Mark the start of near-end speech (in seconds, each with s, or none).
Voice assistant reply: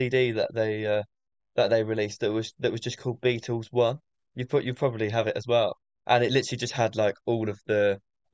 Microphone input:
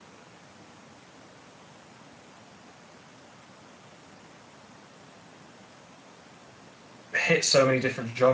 7.1 s